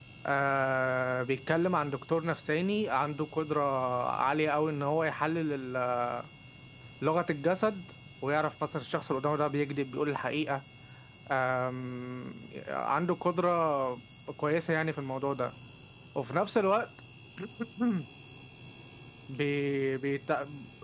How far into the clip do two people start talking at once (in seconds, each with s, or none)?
none